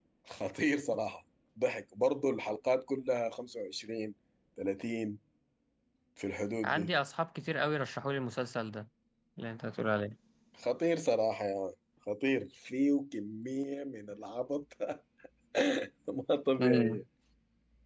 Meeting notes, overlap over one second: none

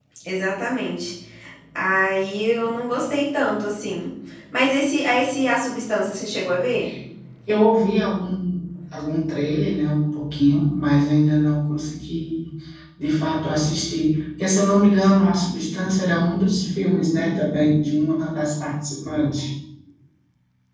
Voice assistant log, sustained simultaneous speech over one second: none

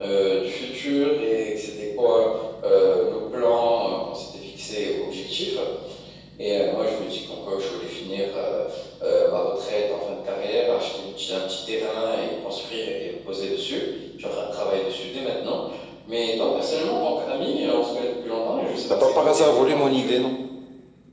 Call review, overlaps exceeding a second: present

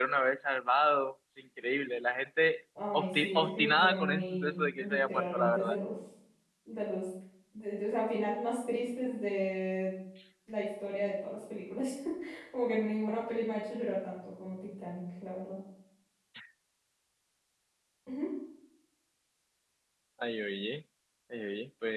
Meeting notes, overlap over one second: present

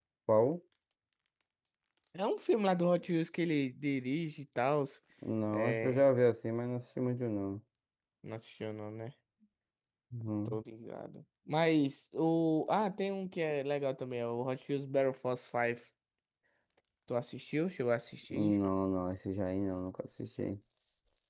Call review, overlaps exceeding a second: none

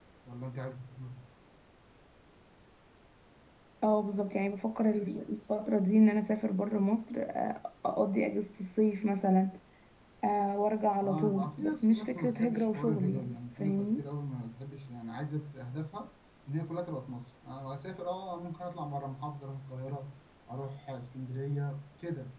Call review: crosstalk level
present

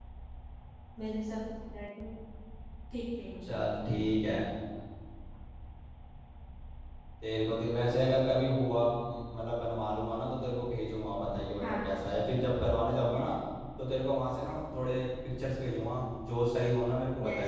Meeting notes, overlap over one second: none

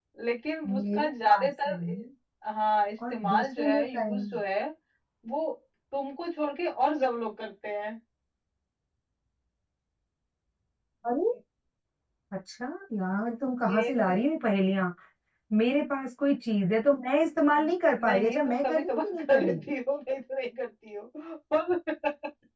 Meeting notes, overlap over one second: present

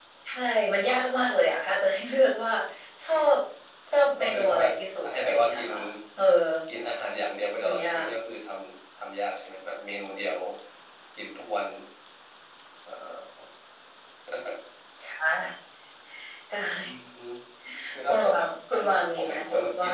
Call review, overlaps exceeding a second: present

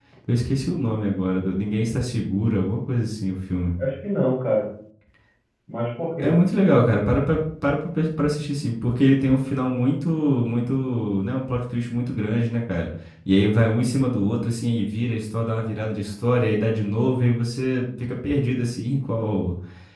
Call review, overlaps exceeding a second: none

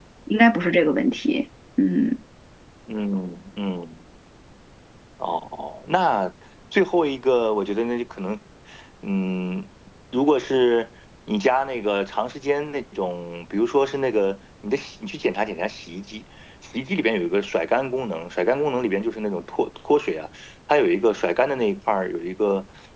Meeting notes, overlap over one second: none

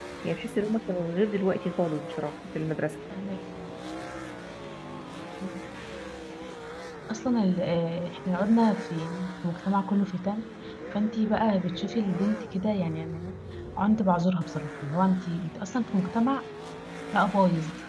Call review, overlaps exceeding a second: none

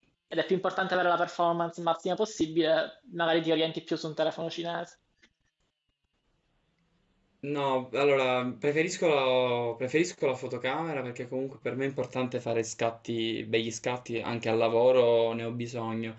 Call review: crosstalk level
none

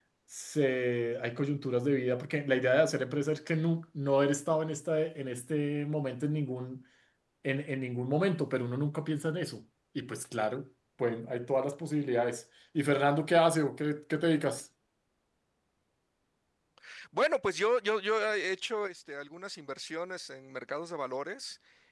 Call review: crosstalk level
none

